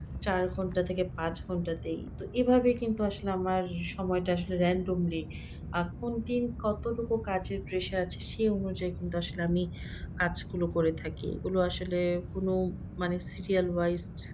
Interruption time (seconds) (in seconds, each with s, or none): none